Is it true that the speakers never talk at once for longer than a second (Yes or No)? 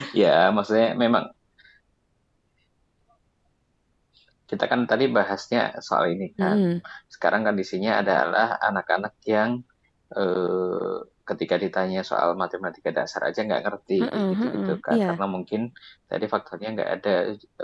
No